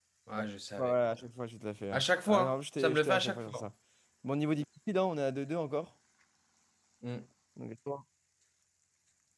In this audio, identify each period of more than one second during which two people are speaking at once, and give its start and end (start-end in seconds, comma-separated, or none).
1.9-3.6